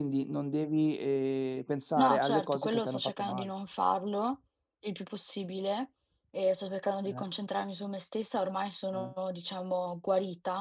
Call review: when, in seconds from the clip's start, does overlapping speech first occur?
2.0 s

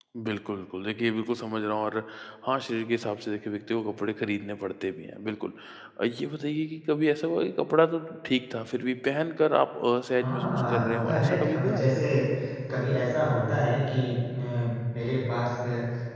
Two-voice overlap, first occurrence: 10.2 s

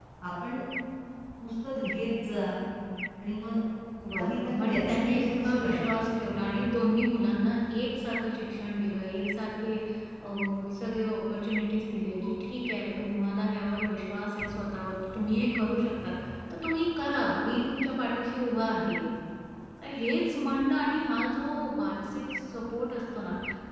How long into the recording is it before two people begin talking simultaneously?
4.1 s

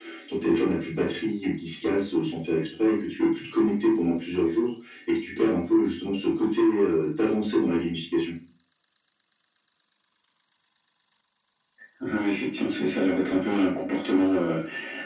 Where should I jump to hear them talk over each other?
none

